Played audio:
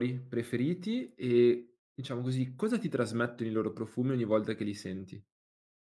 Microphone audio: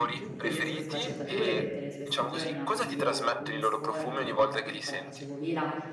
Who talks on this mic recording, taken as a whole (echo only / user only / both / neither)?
both